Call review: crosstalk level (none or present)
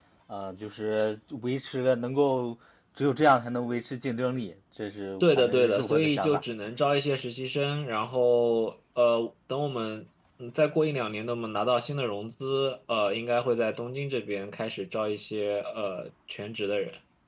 present